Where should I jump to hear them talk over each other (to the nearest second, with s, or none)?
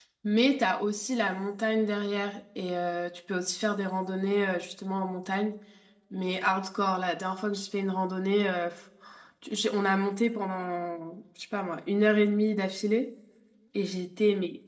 none